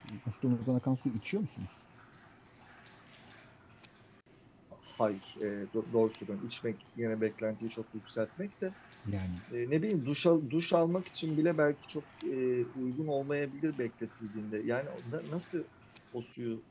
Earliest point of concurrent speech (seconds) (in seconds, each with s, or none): none